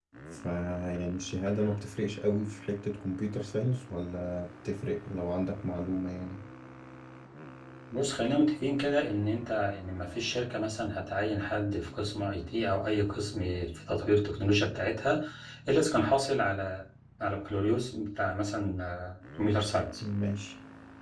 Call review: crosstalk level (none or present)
none